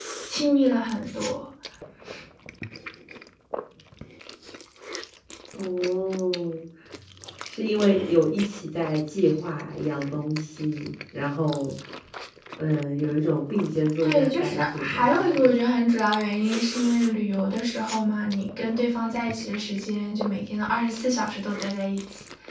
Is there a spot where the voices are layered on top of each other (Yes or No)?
Yes